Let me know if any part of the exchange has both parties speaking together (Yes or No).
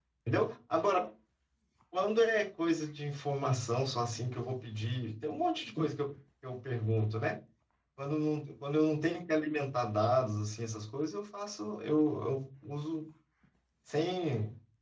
No